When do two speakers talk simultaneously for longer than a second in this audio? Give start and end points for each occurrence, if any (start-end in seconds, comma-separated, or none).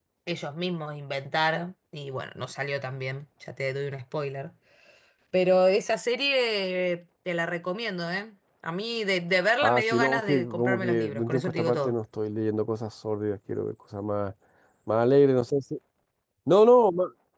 9.6-12.0